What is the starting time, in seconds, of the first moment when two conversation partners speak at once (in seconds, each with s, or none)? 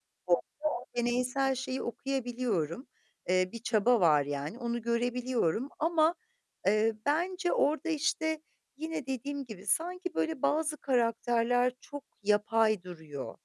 none